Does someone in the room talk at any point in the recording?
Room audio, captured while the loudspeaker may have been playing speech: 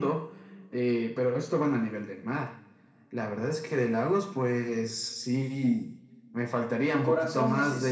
Yes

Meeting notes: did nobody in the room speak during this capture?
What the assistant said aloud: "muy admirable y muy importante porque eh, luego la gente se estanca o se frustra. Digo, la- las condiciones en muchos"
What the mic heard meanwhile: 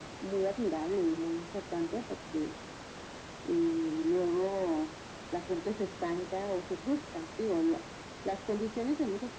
Yes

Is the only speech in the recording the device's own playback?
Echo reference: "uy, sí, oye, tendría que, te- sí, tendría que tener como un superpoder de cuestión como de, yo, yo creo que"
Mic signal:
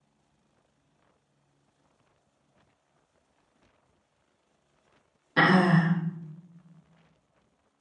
No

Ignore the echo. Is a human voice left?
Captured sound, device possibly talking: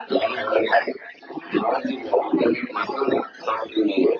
No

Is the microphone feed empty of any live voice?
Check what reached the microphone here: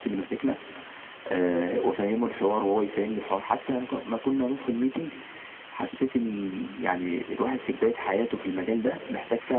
Yes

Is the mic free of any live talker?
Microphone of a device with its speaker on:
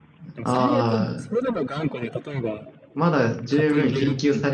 No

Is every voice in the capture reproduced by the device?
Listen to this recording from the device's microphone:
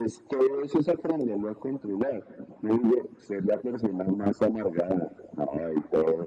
Yes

